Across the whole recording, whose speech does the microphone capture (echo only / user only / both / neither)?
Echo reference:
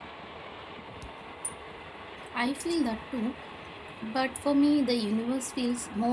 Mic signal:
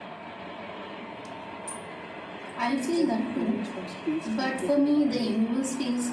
both